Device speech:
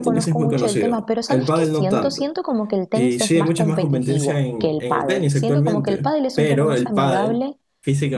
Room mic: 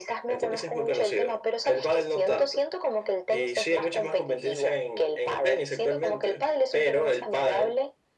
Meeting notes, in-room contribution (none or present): none